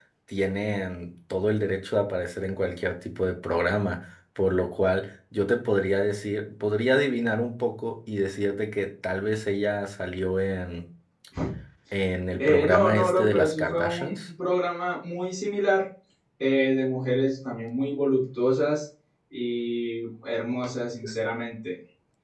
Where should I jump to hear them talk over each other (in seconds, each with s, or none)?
12.4 s